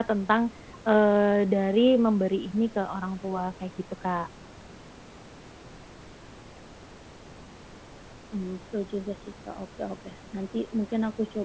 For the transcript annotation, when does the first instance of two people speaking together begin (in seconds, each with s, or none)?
none